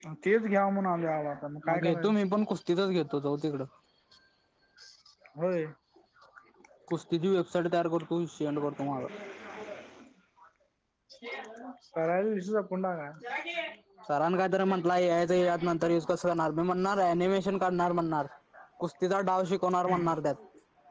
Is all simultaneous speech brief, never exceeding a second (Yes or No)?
Yes